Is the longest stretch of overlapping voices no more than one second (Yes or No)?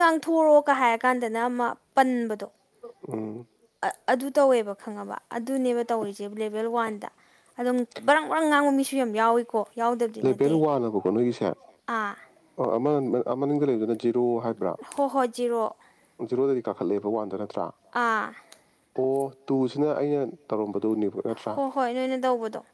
Yes